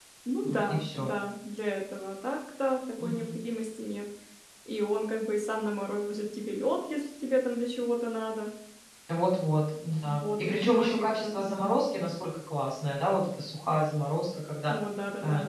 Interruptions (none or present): present